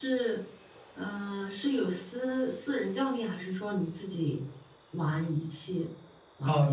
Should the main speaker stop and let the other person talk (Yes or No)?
Yes